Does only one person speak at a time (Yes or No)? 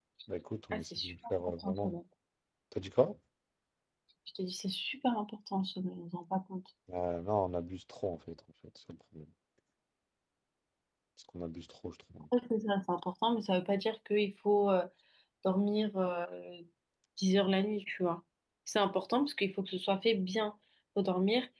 No